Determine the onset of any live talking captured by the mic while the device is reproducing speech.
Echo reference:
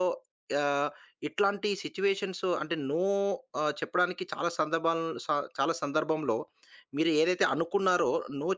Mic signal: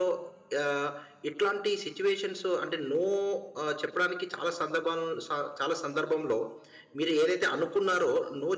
none

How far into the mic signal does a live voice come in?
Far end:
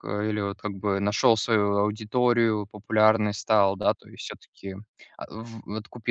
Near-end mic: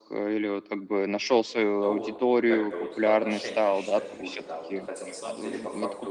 2 s

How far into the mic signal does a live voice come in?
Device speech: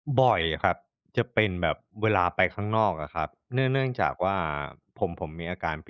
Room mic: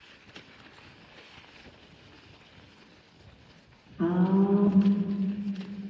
4 s

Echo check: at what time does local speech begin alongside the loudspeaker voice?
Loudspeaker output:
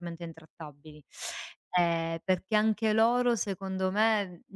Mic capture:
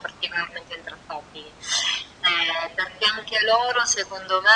none

